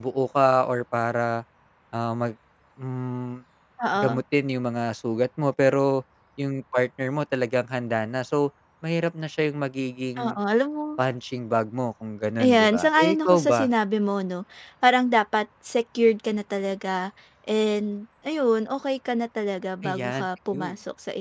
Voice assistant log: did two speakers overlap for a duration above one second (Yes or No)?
Yes